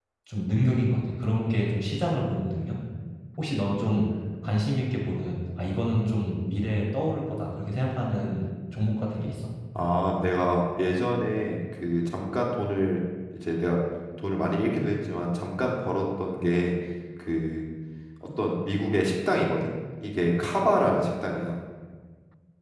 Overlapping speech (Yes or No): No